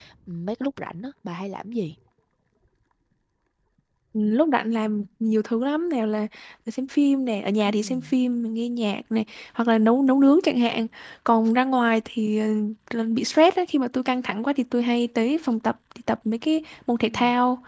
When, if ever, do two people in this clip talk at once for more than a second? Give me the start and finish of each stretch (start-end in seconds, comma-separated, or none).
none